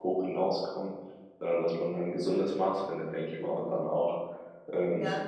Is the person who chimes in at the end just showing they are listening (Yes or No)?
Yes